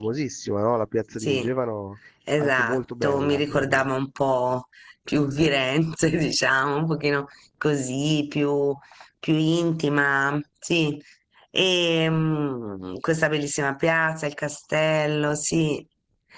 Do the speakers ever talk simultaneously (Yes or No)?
Yes